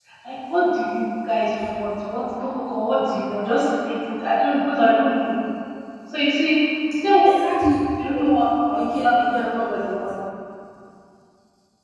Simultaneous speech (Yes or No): Yes